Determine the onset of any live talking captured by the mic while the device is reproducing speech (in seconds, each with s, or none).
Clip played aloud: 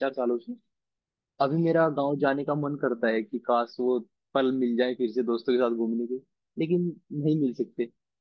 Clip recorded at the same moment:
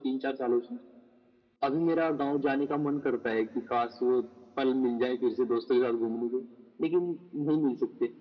none